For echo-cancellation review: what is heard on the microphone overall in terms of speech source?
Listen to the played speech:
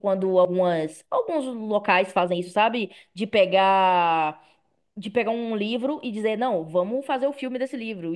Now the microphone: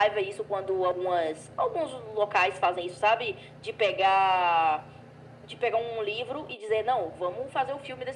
echo only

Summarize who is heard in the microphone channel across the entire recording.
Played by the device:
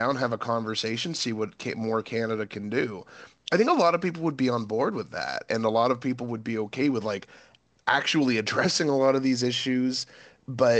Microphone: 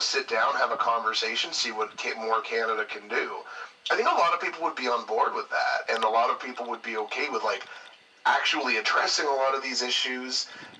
echo only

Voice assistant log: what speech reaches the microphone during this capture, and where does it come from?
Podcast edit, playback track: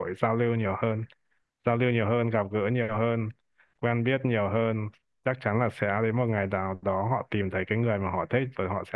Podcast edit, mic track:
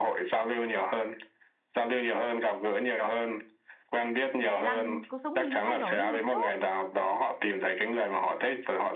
both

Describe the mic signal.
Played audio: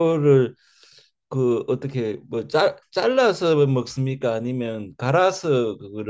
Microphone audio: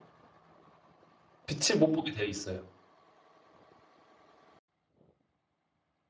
user only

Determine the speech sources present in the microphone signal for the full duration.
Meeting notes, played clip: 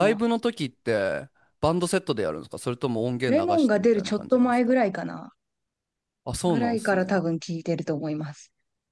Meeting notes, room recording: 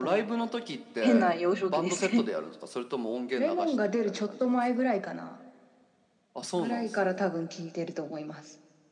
both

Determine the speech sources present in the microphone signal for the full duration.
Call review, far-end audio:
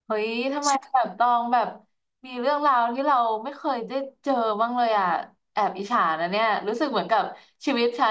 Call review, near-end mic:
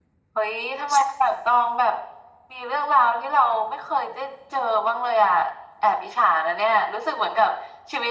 echo only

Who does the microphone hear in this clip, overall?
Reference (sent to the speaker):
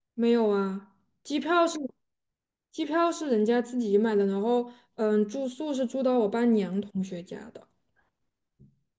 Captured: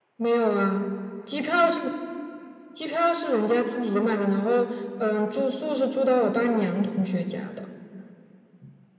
echo only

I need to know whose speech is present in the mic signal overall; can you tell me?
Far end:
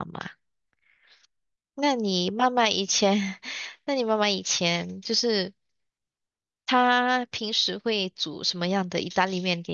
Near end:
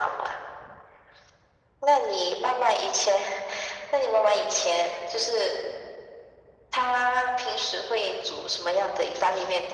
echo only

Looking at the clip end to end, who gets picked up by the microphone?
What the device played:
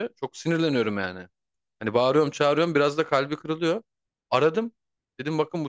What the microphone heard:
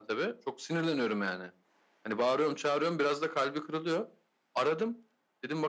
echo only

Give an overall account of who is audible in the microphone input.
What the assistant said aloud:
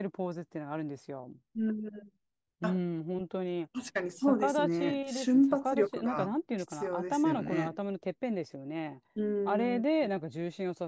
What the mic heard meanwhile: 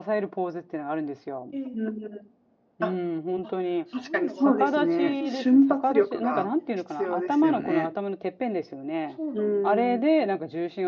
both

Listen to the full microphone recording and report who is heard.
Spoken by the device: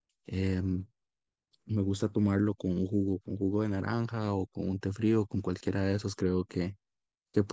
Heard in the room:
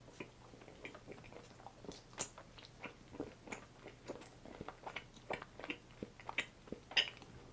neither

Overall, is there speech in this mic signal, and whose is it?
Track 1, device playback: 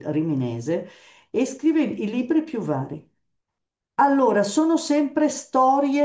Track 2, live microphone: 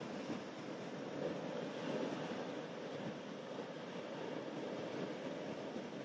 neither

